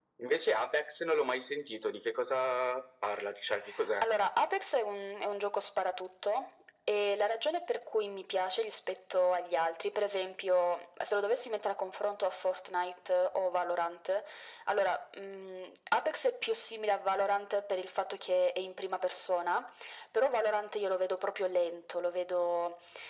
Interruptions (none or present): none